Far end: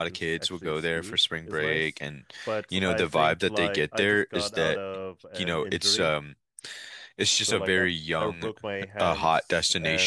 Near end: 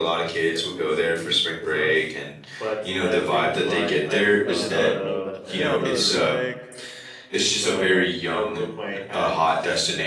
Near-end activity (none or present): present